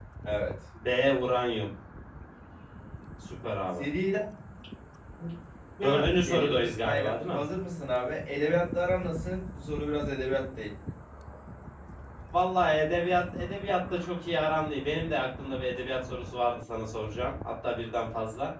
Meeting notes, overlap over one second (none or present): present